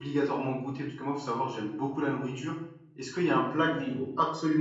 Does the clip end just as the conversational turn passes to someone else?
No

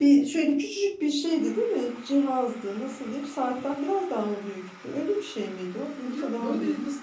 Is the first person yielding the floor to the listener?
Yes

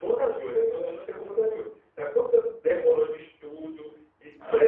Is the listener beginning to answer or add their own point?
No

